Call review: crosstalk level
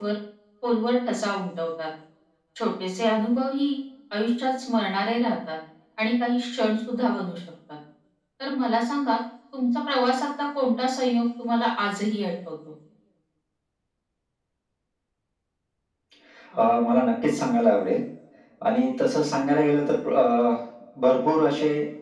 none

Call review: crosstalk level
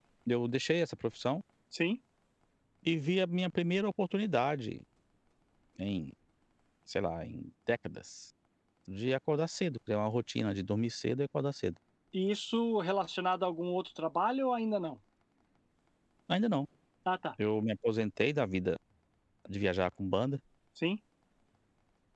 none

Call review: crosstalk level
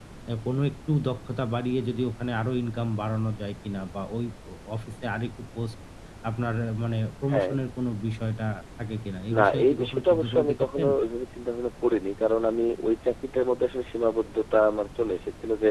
present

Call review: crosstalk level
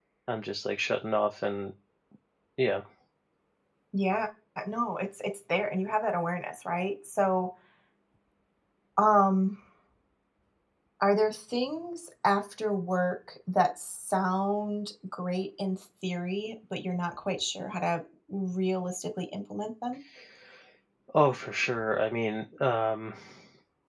none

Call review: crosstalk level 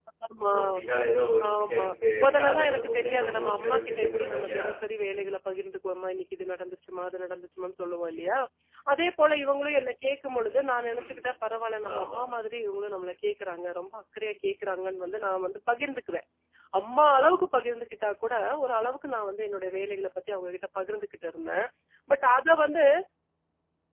present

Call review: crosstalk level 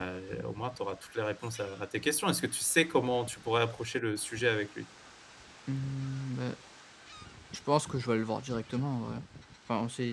none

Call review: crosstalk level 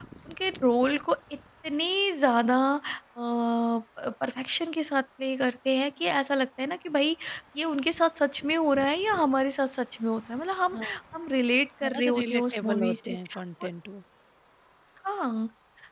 present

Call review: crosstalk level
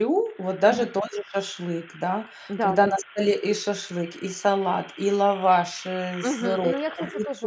present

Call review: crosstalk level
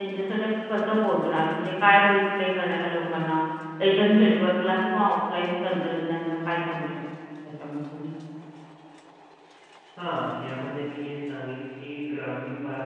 none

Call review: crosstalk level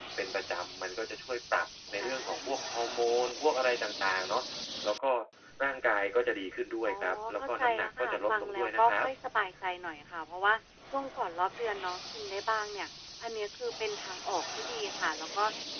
present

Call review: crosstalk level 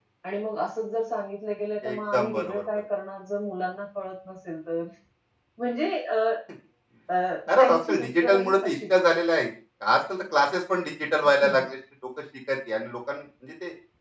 present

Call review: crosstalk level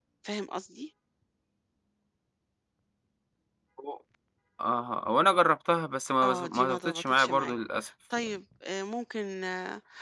present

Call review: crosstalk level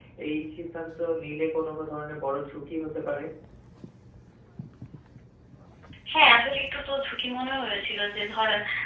none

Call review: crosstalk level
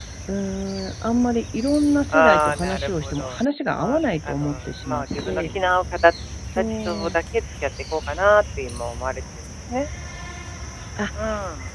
present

